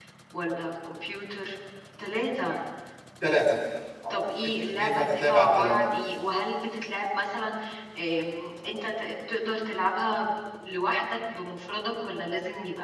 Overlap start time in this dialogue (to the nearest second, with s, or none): 4 s